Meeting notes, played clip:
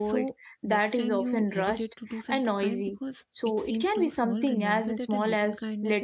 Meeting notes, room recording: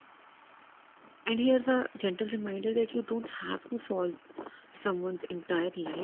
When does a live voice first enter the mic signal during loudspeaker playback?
1 s

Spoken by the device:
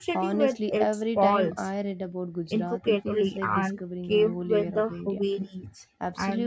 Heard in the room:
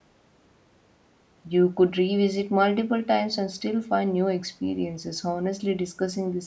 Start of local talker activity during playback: 1 s

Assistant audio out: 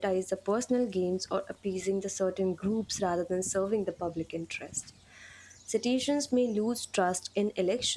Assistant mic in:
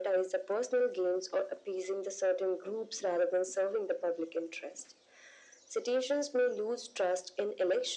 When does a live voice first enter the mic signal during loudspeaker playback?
none

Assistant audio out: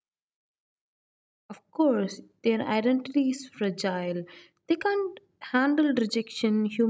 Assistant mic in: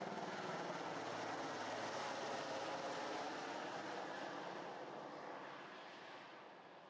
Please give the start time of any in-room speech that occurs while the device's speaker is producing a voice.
none

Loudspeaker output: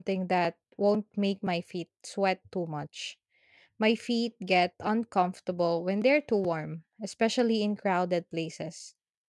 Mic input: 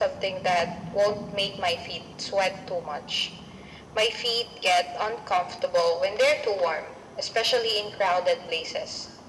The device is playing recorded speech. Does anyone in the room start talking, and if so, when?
none

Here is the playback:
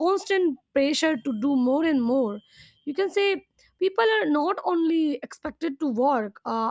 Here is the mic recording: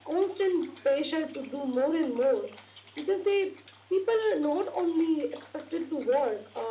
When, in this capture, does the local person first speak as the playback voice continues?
none

